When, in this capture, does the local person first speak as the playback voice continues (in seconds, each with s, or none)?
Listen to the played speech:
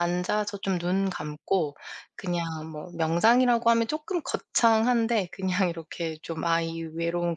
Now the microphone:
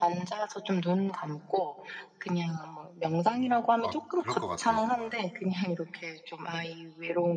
3.4 s